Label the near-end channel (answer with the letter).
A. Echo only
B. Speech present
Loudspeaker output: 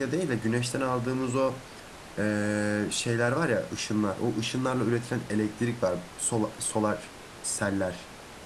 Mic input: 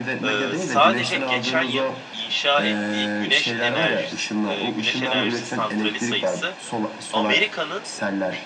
B